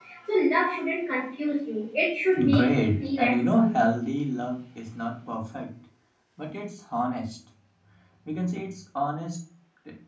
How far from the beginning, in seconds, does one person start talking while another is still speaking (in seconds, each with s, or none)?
2.3 s